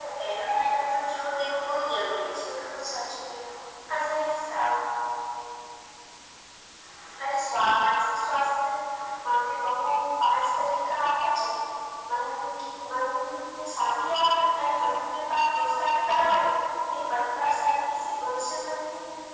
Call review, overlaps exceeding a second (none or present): none